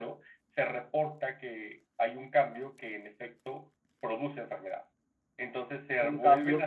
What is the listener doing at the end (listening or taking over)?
taking over